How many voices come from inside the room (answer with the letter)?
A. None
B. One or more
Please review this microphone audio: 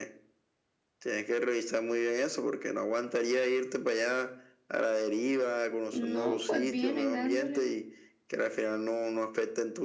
B